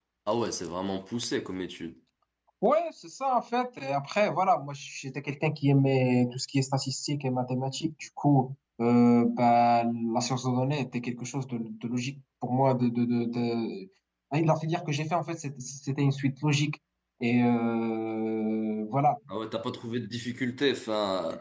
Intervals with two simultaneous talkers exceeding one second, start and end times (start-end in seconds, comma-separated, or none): none